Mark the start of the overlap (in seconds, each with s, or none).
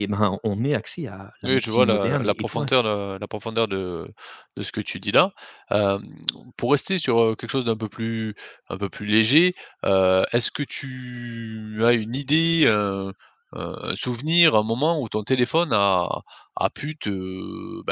1.4 s